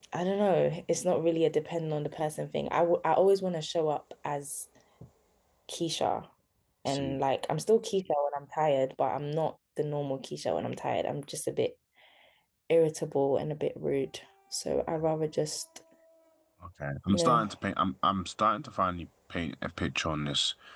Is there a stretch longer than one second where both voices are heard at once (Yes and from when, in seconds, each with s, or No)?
No